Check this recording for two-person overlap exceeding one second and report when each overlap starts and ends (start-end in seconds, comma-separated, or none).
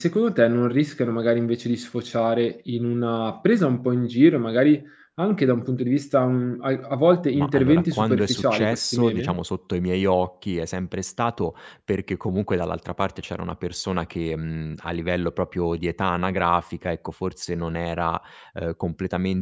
7.3-9.4